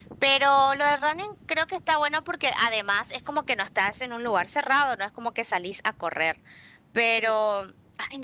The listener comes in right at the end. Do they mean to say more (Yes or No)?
No